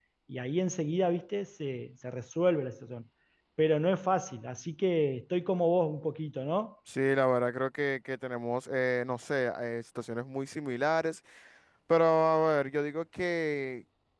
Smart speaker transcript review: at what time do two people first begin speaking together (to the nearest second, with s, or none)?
none